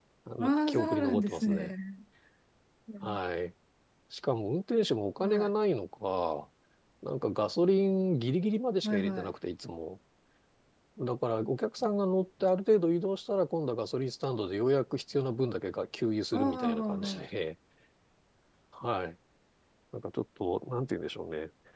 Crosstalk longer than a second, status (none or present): present